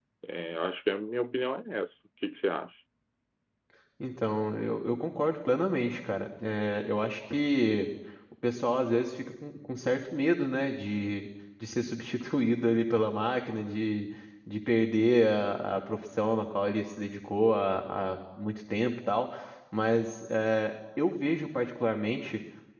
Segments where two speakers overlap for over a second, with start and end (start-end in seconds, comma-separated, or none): none